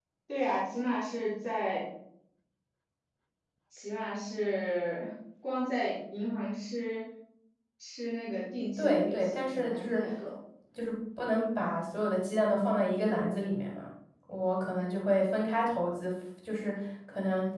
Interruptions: present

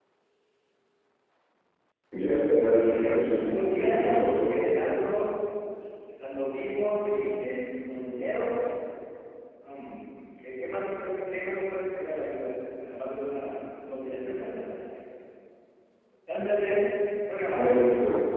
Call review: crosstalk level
present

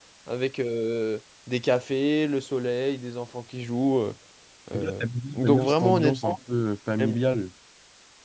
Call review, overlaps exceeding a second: present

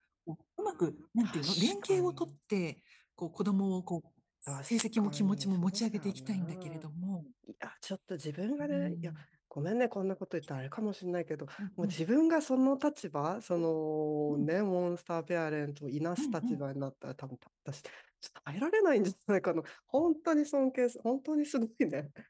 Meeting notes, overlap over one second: present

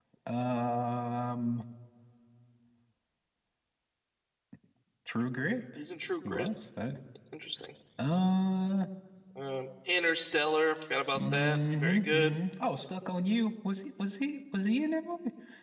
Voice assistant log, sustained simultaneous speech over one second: present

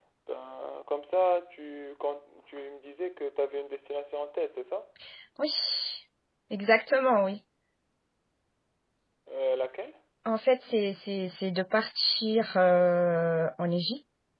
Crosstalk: none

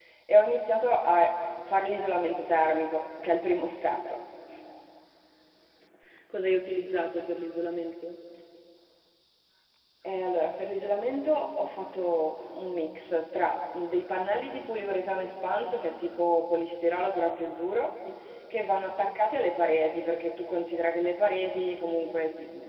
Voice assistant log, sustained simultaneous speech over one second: none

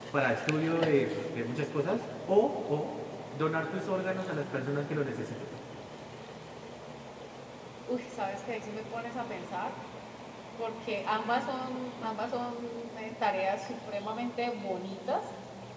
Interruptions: none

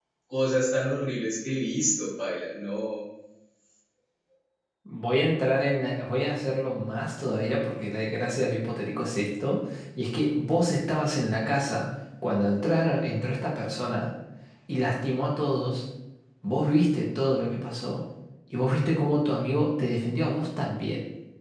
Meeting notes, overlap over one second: none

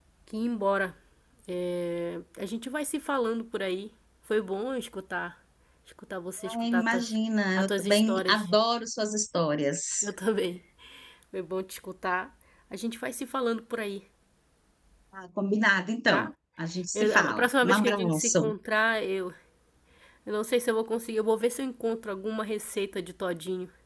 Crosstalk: present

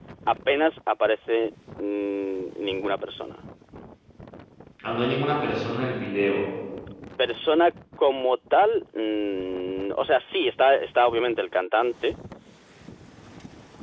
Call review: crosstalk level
none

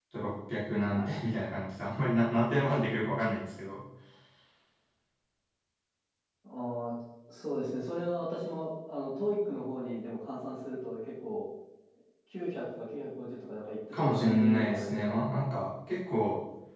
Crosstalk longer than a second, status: present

